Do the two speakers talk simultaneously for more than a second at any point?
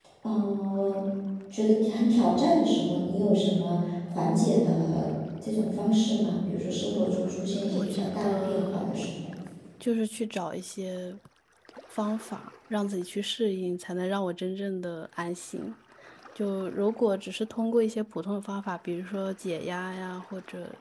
Yes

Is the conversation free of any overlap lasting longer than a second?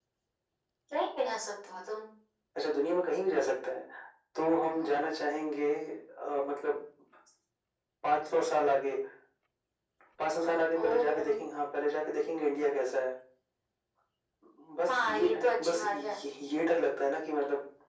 No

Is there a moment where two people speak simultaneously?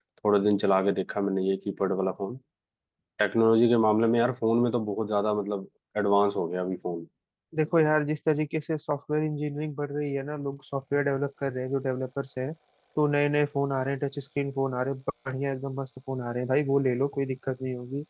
No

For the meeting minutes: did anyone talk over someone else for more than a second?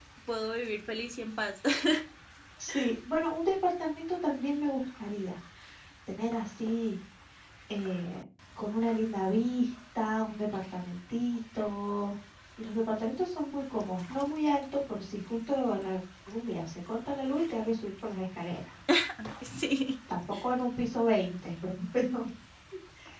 No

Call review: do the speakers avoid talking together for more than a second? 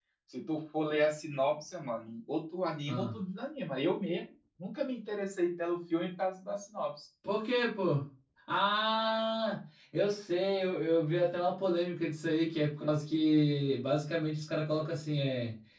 Yes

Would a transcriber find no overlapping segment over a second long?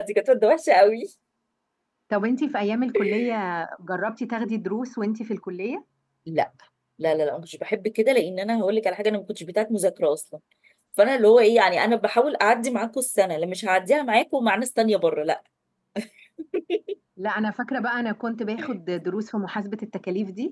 Yes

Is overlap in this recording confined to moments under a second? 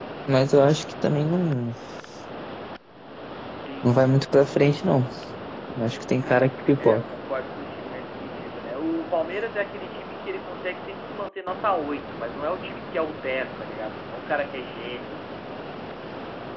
Yes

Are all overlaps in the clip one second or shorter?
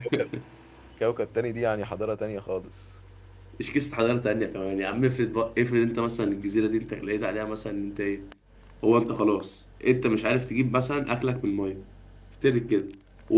Yes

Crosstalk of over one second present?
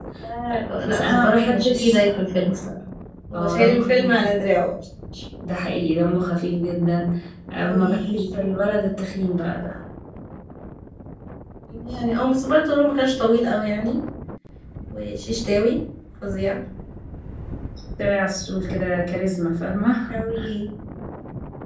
Yes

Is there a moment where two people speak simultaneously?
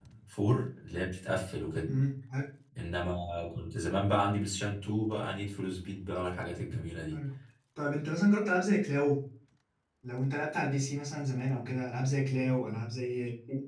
No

